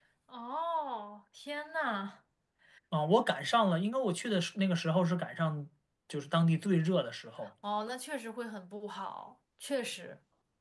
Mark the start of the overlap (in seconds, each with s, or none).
none